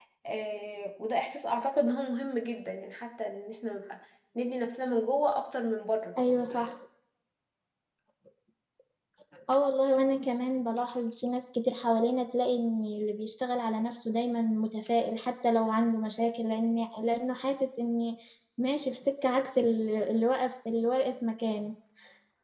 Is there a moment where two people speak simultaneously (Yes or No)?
No